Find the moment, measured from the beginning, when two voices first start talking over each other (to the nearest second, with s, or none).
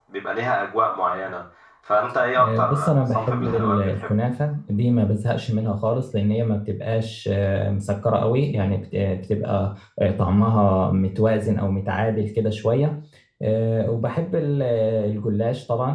2 s